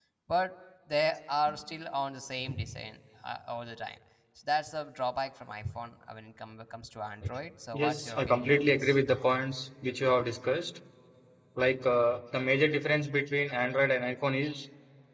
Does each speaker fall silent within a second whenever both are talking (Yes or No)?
No